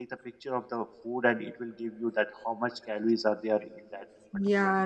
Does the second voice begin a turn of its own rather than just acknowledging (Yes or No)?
Yes